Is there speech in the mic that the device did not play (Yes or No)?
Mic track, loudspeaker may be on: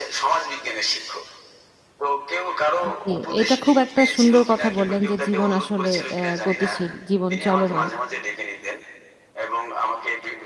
Yes